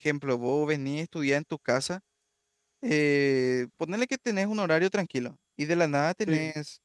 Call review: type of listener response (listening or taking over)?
listening